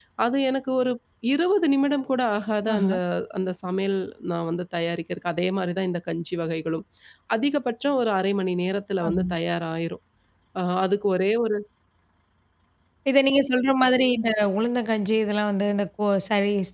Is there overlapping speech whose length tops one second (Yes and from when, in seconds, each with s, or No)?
No